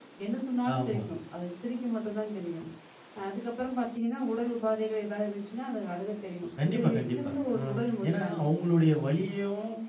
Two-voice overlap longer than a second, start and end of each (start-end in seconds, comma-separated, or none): 6.6-8.4